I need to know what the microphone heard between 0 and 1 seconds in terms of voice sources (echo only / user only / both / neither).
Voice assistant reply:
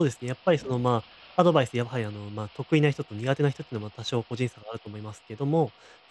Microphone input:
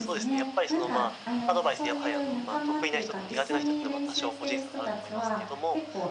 both